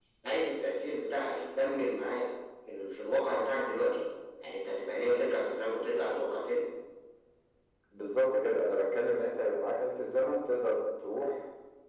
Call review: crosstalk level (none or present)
none